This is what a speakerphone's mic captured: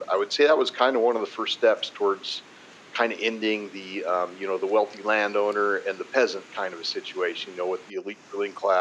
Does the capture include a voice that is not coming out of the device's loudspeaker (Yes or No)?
No